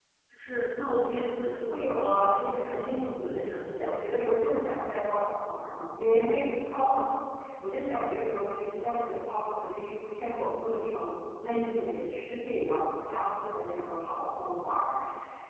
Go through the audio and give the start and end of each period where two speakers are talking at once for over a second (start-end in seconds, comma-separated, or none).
1.7-4.1